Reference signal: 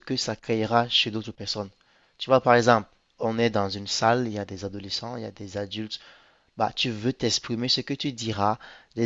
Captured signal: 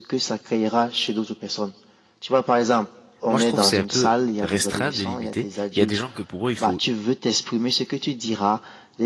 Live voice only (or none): moi, je trouve que c'est un peu restreindre, de limiter. Il y a des gens que pour eux, il faut